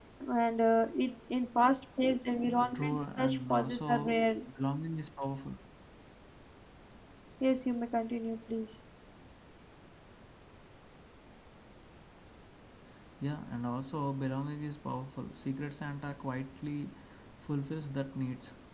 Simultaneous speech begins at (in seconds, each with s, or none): 2.7 s